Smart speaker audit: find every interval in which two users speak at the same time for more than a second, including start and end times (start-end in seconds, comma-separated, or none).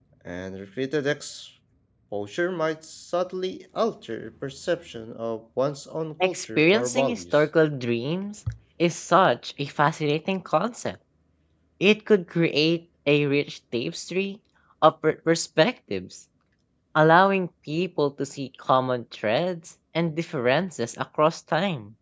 6.2-7.4